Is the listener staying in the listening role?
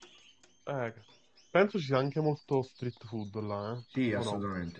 No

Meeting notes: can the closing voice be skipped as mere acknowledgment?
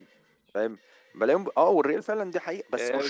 No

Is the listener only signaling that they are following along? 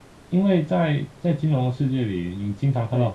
Yes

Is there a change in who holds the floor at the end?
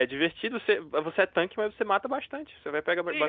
Yes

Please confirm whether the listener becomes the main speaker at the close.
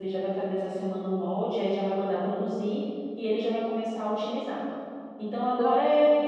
No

